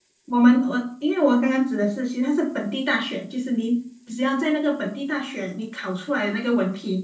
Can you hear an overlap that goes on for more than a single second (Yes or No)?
No